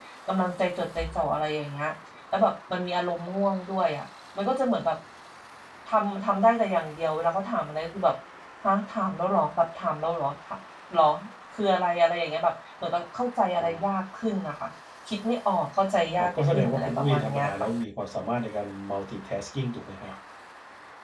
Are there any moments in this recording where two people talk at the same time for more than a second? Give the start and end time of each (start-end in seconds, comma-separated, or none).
16.2-17.7